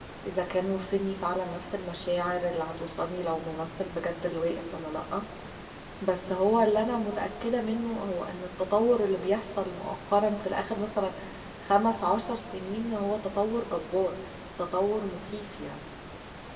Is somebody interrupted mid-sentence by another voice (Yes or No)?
No